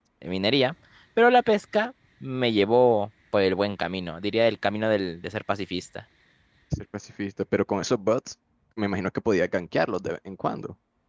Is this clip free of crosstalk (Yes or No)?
Yes